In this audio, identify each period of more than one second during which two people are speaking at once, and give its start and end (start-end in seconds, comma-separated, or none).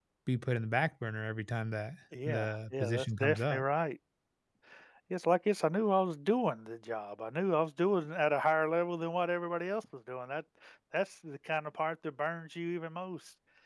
2.2-3.6